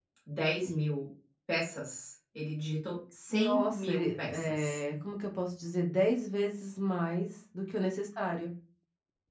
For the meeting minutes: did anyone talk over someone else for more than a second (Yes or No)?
Yes